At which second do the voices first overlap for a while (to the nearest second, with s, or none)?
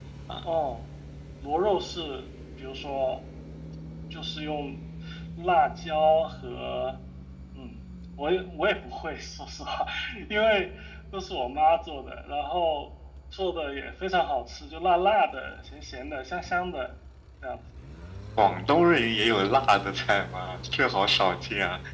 none